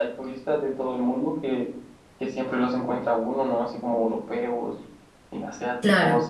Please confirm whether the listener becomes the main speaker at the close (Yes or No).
No